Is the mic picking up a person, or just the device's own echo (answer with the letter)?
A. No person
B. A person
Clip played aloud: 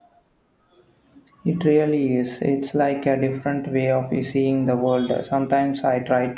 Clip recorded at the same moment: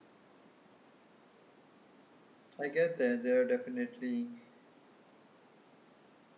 B